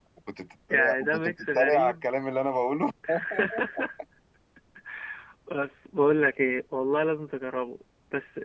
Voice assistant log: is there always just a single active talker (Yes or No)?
No